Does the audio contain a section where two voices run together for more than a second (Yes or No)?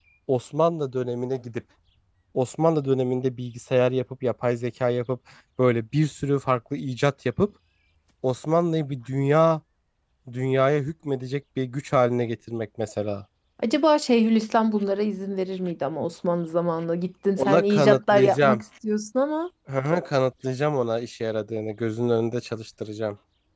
Yes